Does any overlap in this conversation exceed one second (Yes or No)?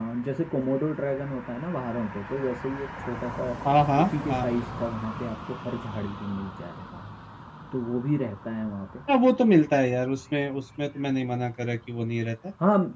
No